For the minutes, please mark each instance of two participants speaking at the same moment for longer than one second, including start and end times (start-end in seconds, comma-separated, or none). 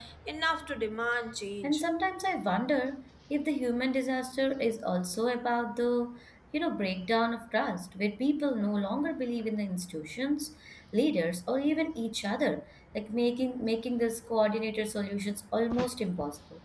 none